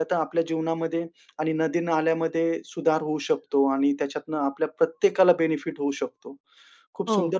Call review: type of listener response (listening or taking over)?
listening